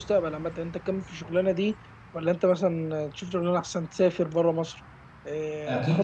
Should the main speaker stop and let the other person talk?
Yes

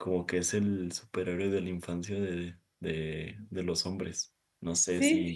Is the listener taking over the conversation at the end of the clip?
Yes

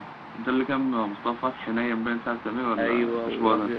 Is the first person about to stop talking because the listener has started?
Yes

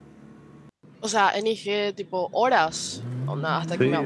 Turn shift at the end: Yes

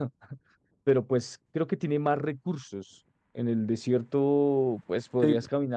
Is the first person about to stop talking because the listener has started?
No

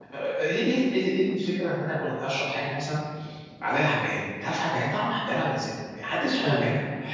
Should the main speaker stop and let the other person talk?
Yes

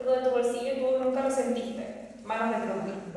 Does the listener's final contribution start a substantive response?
Yes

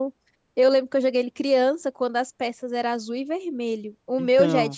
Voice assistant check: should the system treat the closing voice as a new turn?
No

